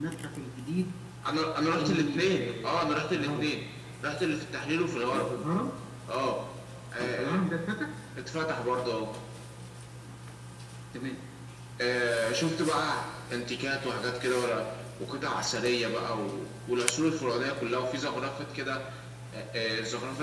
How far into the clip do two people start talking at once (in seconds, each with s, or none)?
1.8 s